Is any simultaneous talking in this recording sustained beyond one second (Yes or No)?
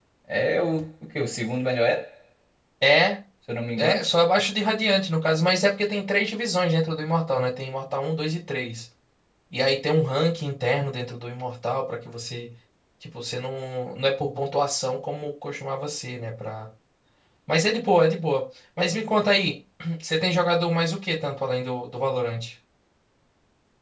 No